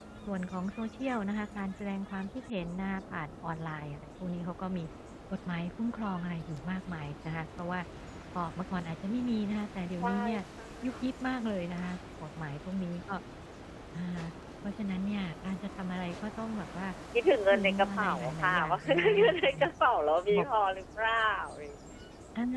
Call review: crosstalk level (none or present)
present